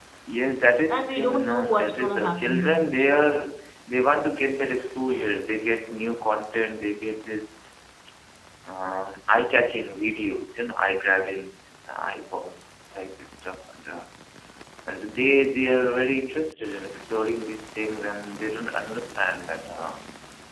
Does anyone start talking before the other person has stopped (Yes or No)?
Yes